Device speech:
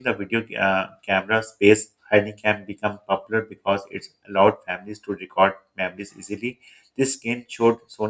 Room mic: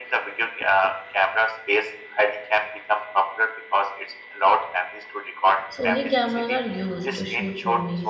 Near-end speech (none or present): present